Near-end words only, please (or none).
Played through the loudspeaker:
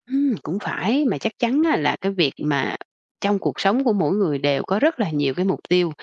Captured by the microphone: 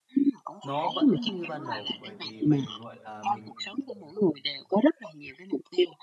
nó vẫn như ban đầu, bởi vì mình, gọi là, mình